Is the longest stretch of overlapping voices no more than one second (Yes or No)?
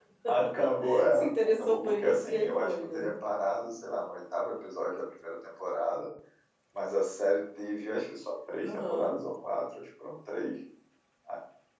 No